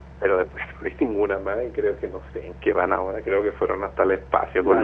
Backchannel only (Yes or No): No